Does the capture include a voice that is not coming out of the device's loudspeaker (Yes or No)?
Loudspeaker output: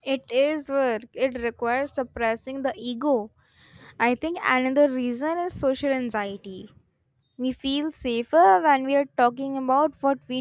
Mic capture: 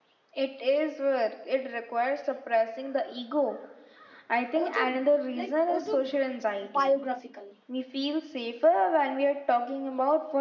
Yes